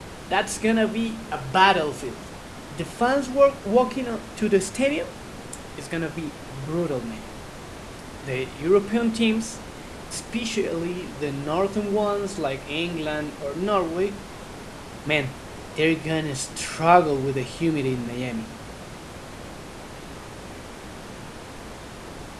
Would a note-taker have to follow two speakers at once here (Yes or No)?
No